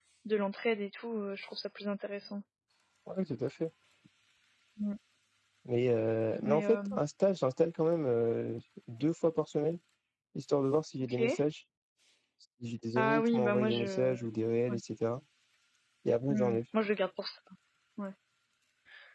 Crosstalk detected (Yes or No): Yes